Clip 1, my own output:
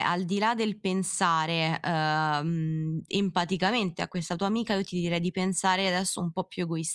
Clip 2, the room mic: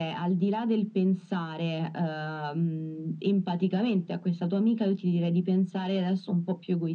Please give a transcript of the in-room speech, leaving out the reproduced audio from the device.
none

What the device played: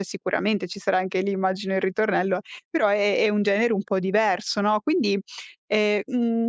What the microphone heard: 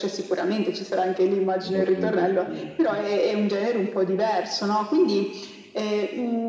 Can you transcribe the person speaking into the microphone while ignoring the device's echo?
Mi ha fatto molto piacere, sì.

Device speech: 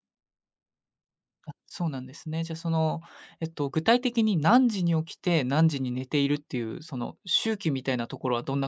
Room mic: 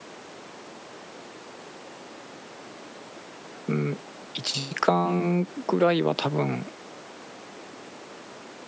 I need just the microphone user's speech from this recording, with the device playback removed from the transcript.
うん、1時間ぐらいは多分、

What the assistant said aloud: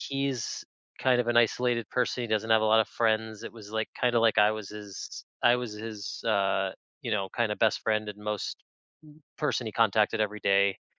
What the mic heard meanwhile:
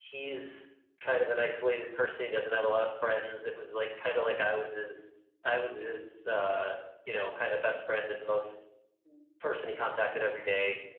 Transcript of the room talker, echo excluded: none

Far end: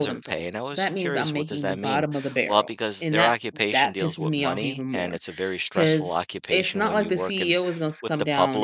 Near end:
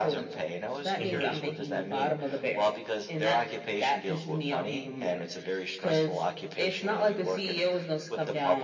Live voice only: Mhm,

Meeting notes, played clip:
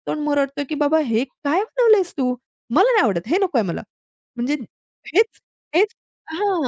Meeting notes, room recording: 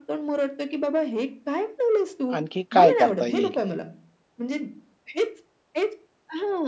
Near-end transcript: आणखी काय करता येईल?

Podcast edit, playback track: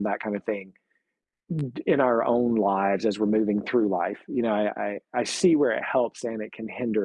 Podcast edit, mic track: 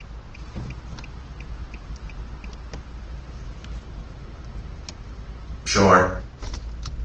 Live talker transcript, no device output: Sure.

